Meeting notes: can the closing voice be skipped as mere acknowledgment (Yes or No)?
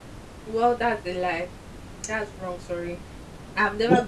No